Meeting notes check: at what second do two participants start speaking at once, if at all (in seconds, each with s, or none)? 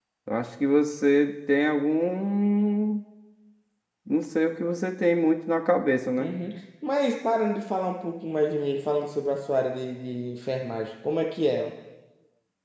none